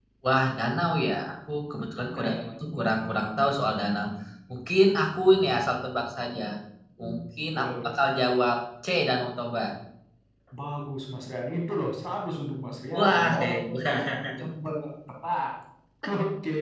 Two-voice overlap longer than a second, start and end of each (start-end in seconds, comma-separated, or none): 12.9-14.2